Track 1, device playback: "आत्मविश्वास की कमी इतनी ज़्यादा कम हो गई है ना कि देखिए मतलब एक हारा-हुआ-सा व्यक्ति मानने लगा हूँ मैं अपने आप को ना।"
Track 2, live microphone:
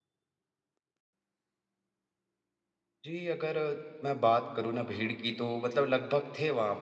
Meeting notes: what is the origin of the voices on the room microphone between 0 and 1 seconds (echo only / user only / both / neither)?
neither